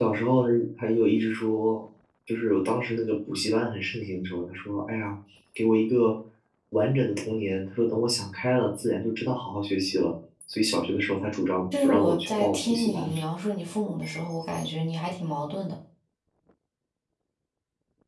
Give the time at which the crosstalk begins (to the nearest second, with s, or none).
12 s